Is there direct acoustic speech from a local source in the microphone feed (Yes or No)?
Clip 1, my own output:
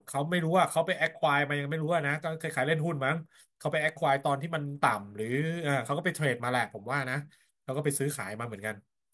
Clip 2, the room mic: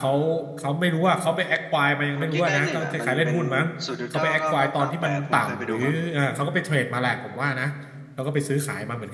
Yes